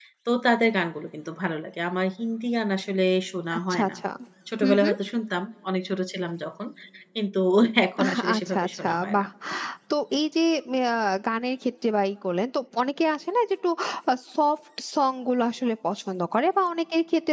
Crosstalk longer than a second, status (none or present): present